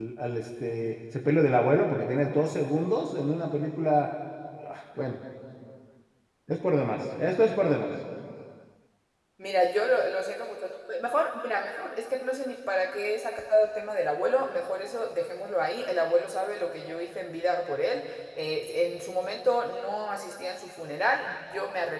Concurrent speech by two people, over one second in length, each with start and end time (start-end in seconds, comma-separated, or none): none